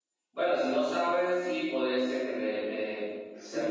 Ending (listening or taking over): taking over